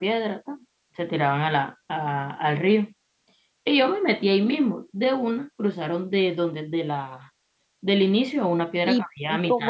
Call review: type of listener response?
taking over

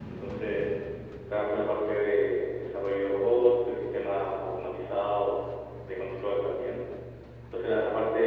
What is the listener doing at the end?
listening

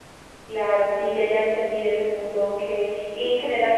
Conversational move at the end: listening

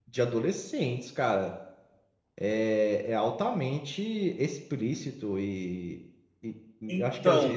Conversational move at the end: listening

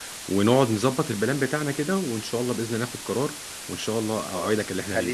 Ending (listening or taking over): taking over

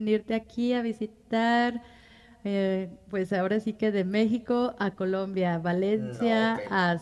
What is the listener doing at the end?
listening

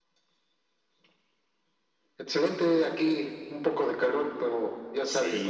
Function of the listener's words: taking over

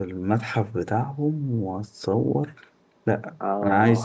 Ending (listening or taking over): listening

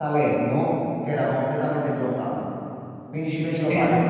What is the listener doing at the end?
listening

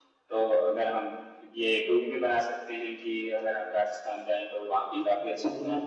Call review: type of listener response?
taking over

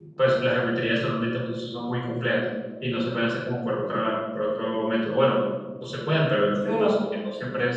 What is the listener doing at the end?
listening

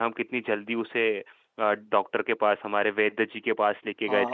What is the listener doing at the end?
taking over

